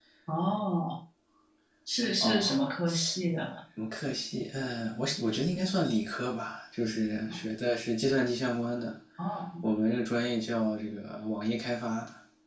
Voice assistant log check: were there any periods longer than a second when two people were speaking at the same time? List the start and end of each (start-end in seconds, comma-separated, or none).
none